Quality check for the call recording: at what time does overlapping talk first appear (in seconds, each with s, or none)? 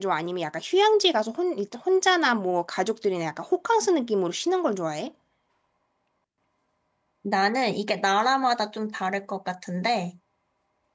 none